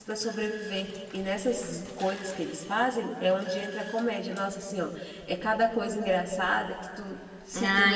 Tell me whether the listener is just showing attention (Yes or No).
No